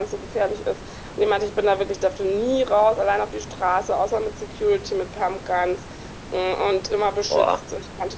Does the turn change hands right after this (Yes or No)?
No